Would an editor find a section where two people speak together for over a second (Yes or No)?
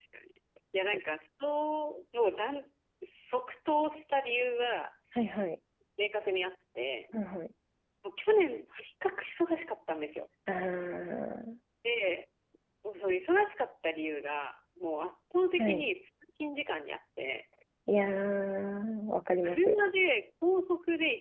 No